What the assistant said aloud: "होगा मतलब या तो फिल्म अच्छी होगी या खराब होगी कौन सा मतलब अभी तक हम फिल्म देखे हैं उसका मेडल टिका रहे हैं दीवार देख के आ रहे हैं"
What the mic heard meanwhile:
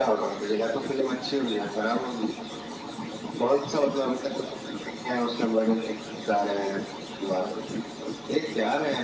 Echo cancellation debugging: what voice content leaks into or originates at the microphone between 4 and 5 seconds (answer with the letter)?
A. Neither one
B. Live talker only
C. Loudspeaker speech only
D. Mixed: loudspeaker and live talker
C